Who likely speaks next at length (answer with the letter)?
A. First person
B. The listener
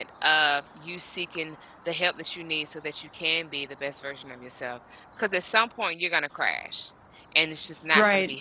A